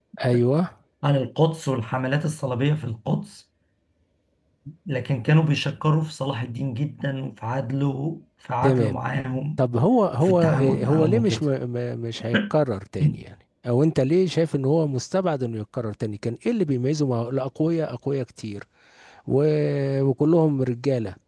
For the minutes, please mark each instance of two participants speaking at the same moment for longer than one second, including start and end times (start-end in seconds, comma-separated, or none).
10.2-11.4